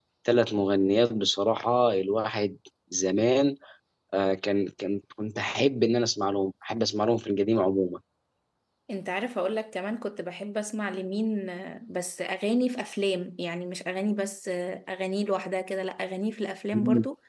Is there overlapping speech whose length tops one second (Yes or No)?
No